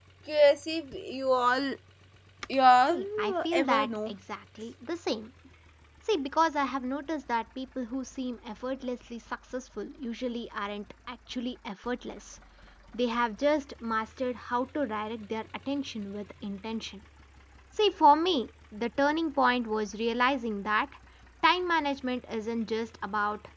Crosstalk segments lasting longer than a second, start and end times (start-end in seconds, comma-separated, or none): 2.9-4.1